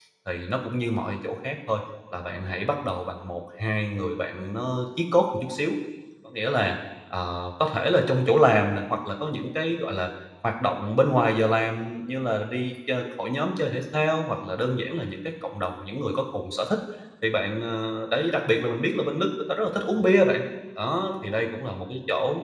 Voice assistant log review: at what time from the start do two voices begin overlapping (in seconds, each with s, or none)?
none